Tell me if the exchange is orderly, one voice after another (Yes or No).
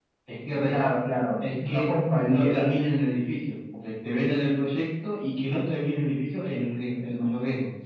No